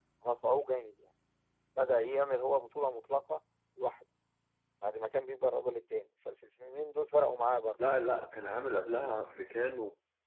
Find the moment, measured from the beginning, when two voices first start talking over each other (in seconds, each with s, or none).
none